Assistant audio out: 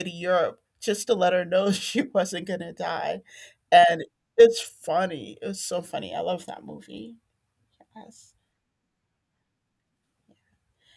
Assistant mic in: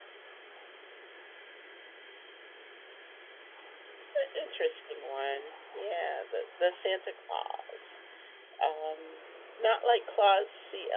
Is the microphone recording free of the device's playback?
Yes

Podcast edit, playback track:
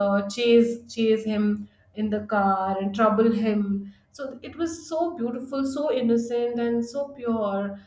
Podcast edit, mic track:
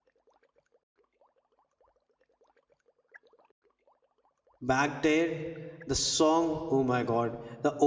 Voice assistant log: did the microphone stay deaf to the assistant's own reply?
Yes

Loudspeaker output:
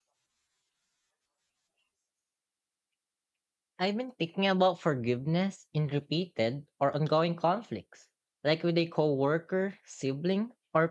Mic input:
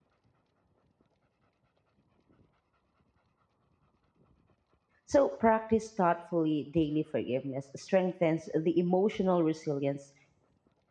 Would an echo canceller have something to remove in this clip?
No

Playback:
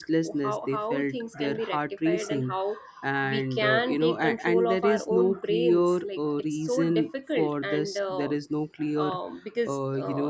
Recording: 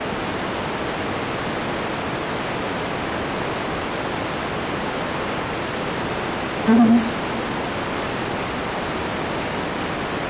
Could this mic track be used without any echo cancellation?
Yes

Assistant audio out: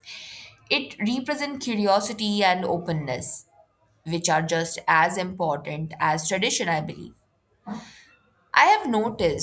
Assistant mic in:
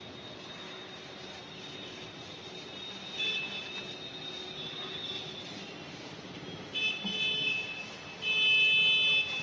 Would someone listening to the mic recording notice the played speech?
No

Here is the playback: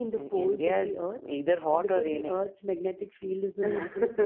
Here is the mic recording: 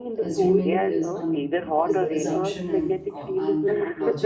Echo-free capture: No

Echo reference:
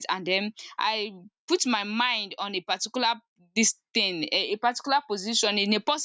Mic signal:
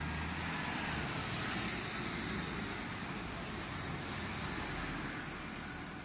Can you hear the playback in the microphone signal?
No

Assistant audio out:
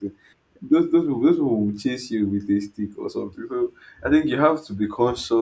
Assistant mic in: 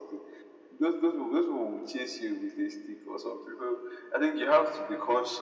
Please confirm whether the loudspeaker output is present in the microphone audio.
Yes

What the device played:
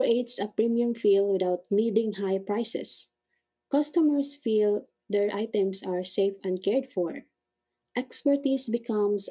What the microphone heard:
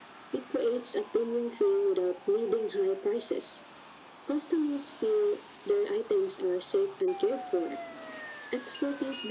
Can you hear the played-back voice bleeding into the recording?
Yes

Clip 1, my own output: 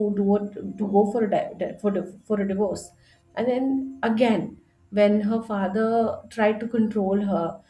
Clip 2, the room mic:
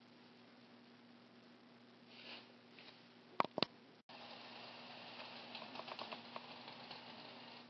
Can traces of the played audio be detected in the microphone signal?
No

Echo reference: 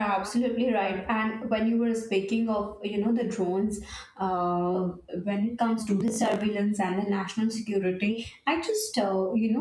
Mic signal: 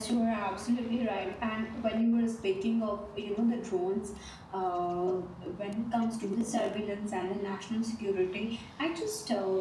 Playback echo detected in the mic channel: Yes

